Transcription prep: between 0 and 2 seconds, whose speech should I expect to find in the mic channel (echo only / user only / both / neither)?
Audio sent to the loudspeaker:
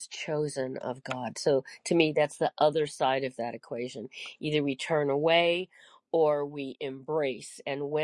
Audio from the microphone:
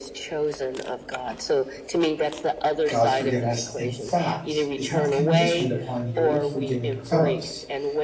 echo only